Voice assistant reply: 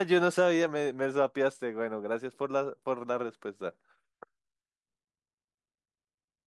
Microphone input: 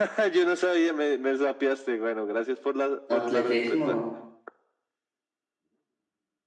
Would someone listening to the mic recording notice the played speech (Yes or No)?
Yes